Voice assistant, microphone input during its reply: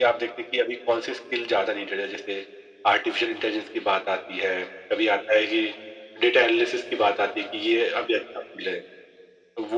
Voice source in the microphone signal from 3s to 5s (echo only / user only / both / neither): echo only